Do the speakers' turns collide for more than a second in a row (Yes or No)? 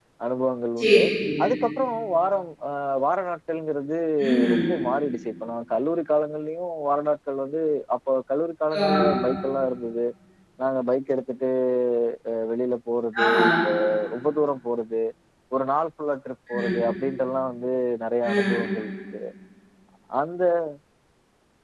No